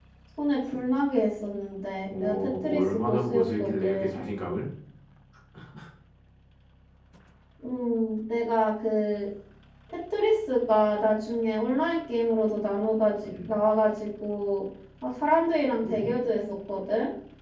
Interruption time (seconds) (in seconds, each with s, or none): 2.2 s